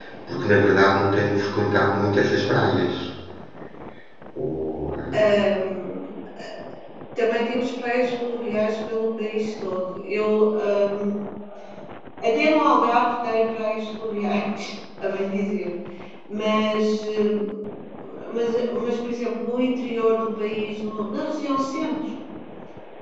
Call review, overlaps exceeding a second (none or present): none